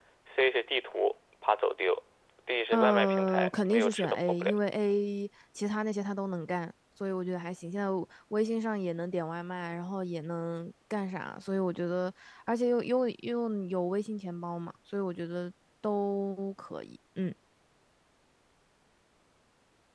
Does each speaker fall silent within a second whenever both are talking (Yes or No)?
No